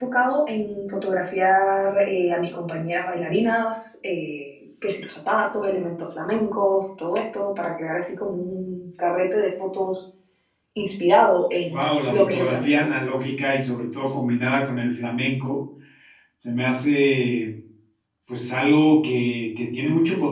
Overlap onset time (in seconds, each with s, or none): 11.7 s